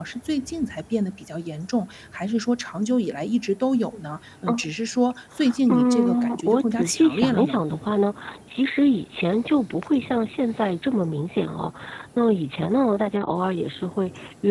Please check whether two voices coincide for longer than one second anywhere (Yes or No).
Yes